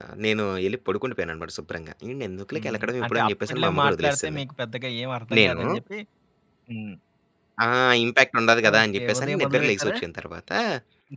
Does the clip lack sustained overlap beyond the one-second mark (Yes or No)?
No